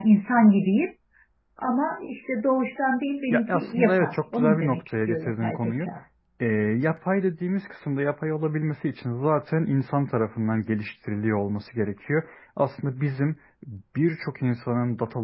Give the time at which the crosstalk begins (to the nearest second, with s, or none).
3 s